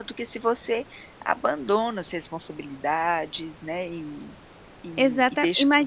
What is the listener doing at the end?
taking over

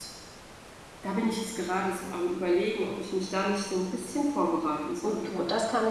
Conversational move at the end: taking over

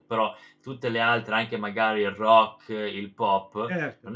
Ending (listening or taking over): listening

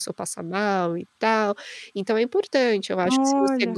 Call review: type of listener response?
listening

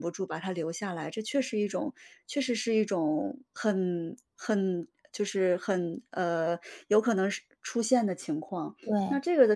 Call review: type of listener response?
listening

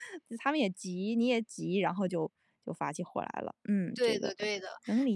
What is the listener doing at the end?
taking over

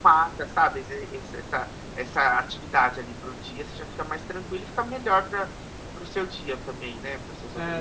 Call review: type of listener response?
taking over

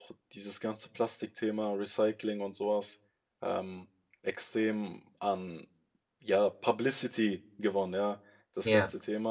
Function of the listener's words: listening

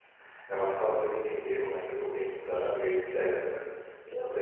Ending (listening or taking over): listening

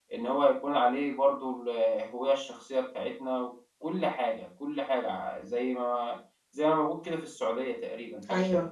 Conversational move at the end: taking over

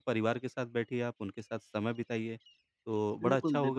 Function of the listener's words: taking over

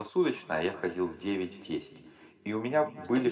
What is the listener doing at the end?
listening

